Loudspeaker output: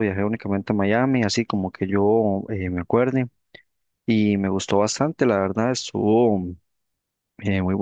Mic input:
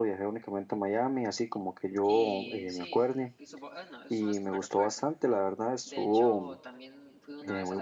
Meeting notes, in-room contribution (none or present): present